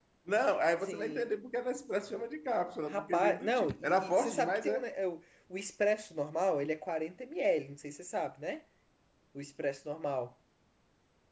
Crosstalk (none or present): present